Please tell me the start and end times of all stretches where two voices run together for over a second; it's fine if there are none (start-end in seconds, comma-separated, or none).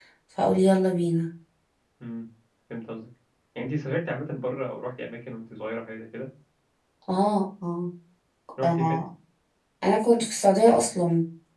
none